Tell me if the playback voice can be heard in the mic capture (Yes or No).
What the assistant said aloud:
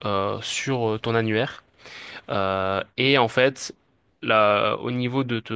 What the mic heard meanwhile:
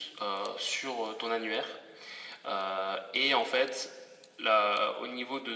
Yes